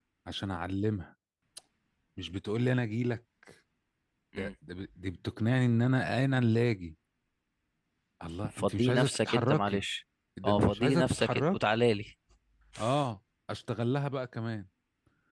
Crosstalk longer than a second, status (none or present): present